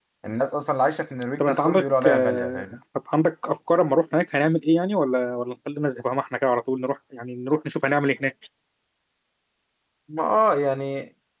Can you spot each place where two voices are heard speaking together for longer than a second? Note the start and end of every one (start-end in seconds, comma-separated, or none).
1.4-2.6